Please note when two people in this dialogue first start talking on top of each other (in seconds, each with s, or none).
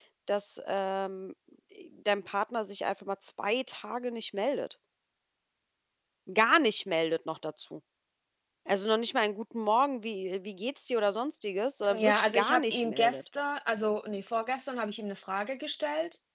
11.9 s